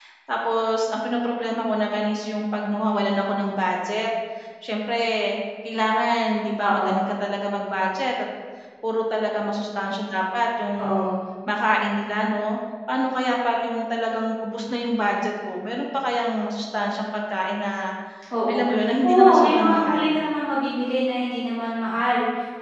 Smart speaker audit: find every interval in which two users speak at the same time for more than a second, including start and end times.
18.5-20.1

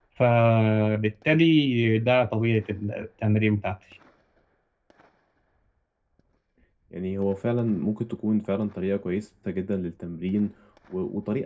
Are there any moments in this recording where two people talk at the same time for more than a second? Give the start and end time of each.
none

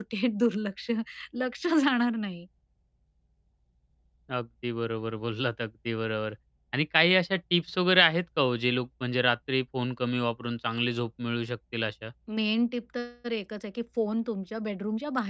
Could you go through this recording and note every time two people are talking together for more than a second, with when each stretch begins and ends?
none

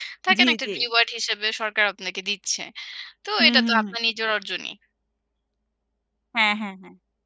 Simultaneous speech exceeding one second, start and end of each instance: none

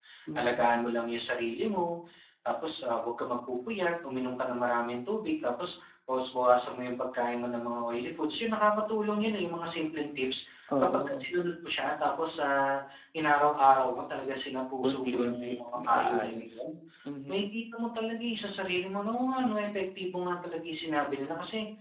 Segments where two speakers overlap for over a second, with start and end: 14.8-16.6

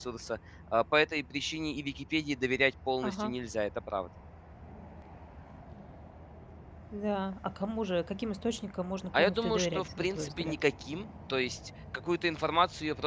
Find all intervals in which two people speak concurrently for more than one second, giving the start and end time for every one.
9.1-10.6

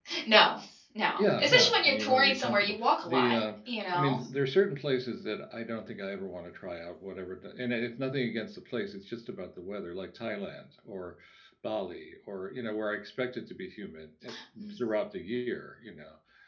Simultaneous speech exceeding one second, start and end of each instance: 1.2-3.4

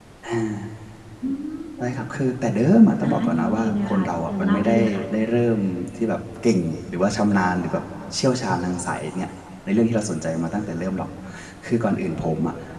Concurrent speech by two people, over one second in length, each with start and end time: 3.0-5.0

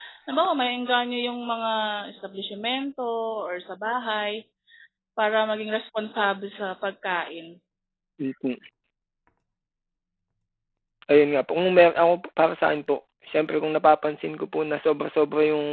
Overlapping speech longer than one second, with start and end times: none

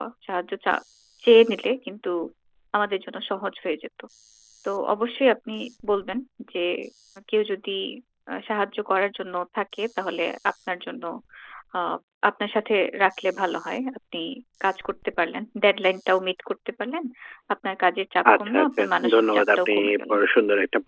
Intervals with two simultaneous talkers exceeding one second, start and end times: 18.4-20.2

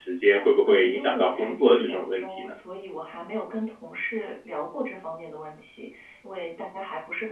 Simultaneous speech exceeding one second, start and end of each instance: 0.6-2.5

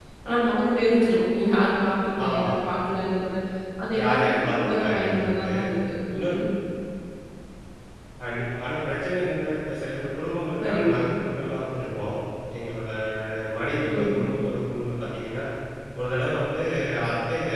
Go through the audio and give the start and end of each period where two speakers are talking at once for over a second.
4.0-5.5

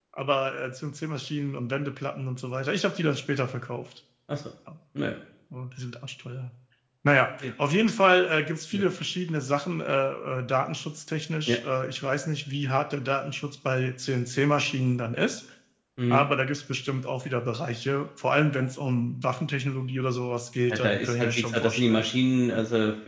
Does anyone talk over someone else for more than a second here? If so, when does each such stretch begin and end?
20.7-22.1

